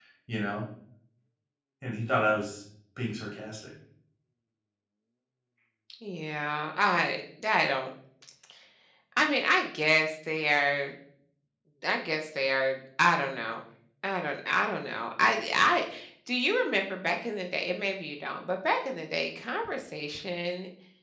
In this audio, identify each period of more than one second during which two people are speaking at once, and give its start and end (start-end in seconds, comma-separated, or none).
none